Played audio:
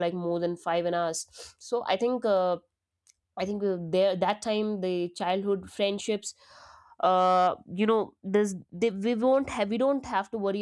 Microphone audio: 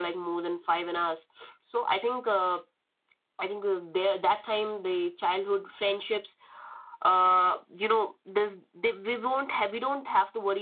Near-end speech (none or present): none